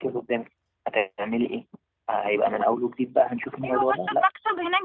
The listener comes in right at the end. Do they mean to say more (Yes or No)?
Yes